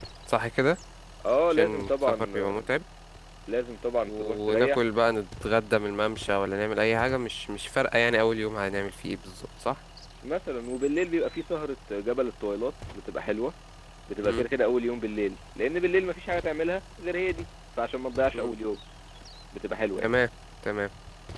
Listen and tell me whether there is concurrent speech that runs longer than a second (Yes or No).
Yes